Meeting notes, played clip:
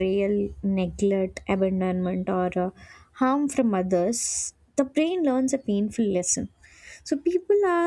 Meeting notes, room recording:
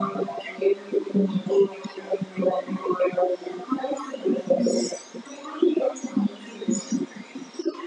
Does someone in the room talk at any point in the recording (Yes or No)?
No